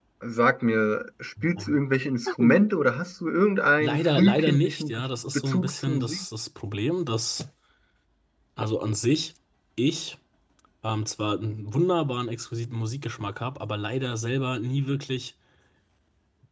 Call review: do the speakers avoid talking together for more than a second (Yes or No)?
No